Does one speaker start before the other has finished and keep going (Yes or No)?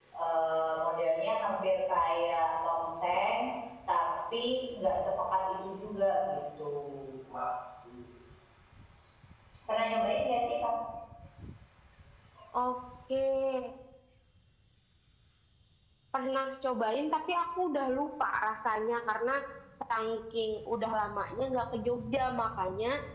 No